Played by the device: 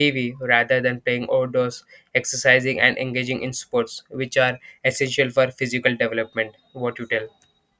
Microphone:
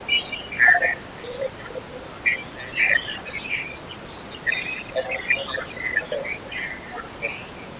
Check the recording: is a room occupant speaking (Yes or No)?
No